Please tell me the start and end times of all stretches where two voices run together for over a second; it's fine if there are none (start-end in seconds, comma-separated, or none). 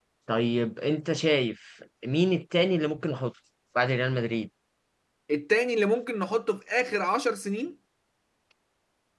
none